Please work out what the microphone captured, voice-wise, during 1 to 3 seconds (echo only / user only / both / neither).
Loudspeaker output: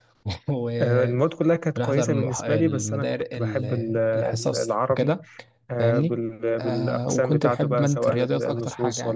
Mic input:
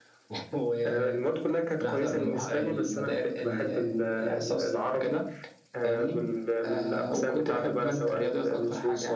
echo only